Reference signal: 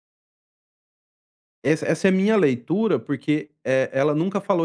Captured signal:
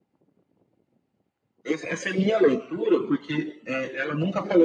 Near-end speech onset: none

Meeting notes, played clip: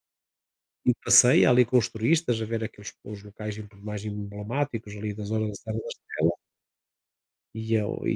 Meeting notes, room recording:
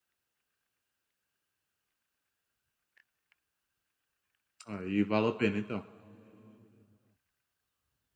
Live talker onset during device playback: 4.7 s

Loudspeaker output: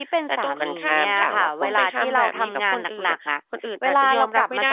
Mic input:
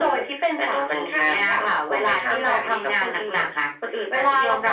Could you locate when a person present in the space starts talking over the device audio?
none

